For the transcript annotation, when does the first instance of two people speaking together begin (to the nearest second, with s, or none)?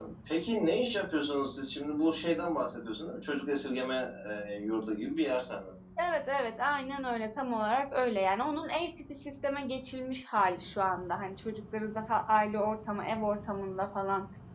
none